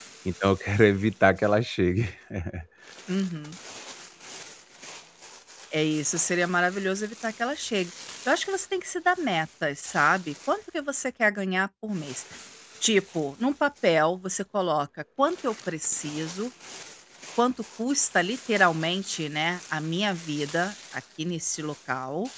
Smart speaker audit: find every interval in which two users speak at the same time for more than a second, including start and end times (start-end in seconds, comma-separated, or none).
none